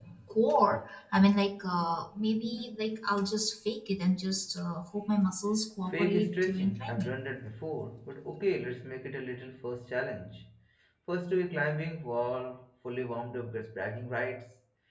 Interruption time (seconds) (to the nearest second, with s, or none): 6 s